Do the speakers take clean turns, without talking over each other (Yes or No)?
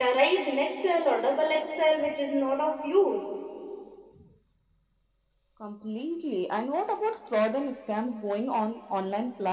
Yes